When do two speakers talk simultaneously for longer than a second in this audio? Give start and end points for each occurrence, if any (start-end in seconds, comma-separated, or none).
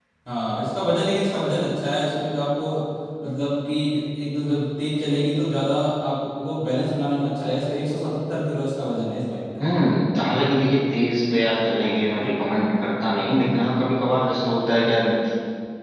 none